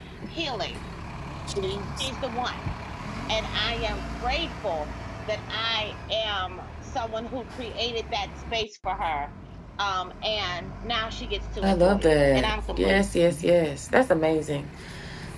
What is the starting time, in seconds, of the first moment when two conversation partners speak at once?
12 s

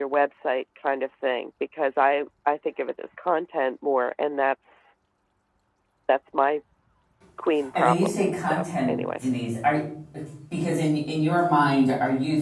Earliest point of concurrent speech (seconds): 8 s

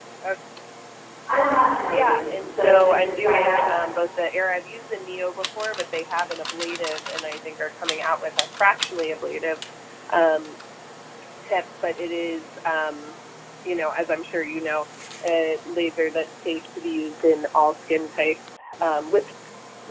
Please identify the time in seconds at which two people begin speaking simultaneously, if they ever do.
2 s

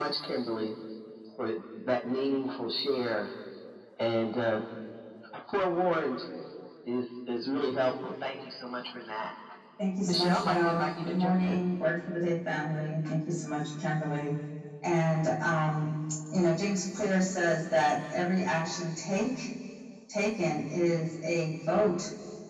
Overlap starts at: 10 s

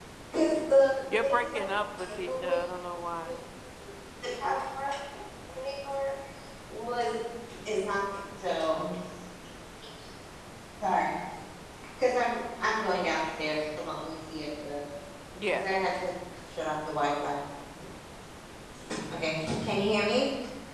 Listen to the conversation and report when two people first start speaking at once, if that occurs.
1 s

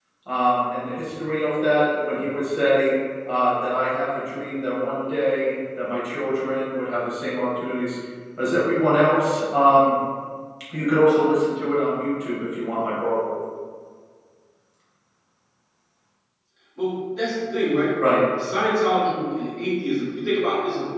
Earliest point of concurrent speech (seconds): none

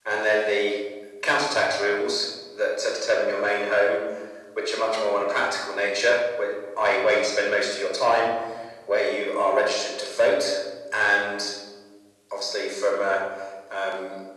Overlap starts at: none

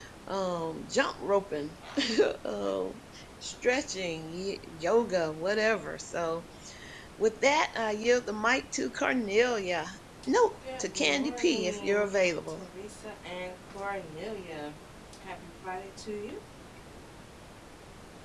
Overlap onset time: 11 s

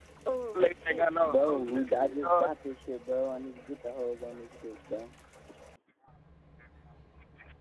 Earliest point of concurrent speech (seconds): 1 s

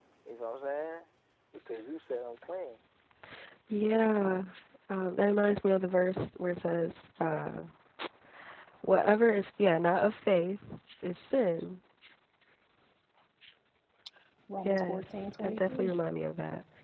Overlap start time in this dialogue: 15 s

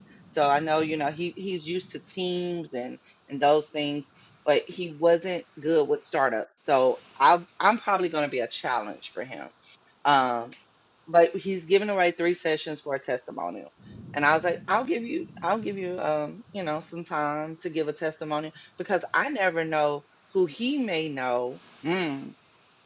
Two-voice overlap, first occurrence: none

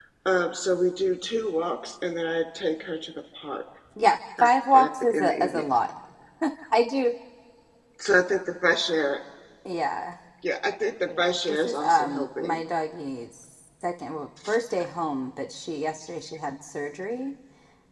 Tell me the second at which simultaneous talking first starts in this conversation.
4 s

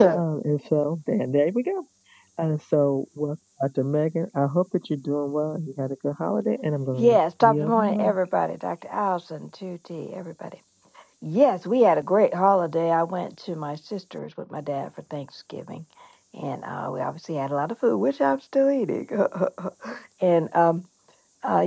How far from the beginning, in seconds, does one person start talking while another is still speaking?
7 s

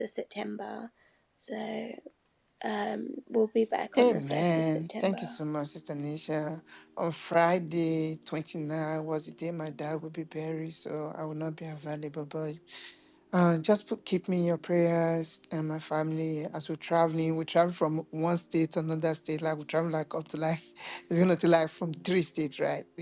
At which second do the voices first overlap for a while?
4 s

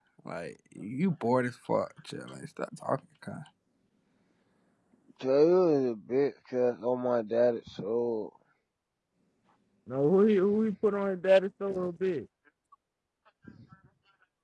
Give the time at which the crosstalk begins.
none

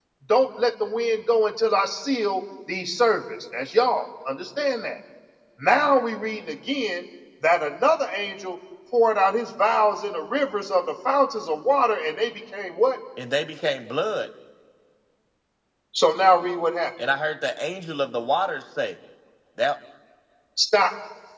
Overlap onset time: none

